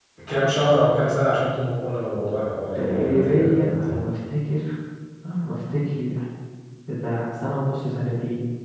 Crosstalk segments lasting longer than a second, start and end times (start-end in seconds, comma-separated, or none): 2.8-4.0